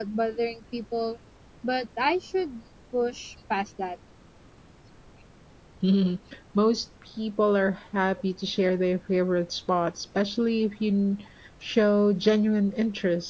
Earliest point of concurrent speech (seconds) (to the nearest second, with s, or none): none